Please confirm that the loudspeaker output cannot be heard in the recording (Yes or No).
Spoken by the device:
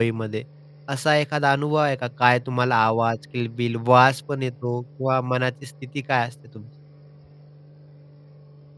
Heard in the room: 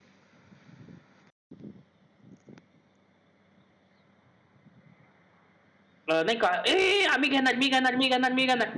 Yes